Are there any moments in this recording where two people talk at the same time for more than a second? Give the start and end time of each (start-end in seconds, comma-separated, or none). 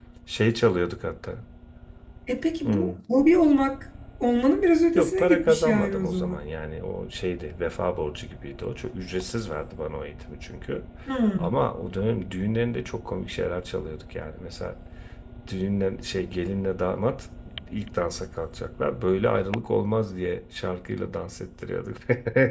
5.0-6.4